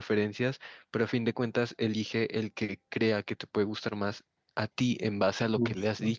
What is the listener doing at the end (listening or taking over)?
listening